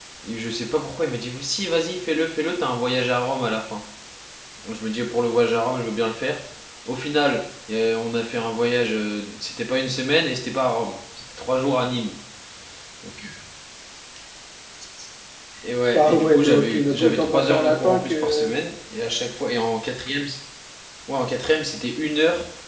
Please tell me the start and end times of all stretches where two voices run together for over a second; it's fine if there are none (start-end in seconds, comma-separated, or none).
15.9-18.5